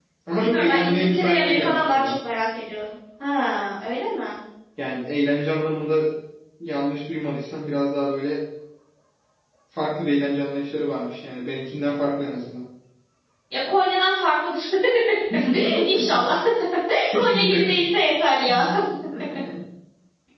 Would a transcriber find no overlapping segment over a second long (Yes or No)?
No